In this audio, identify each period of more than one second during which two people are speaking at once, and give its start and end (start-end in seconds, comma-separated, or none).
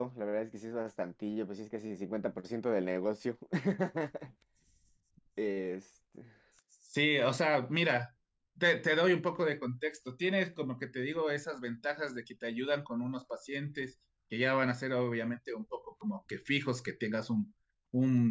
none